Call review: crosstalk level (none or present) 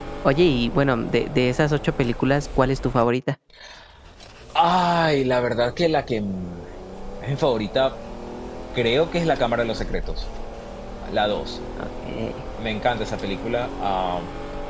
none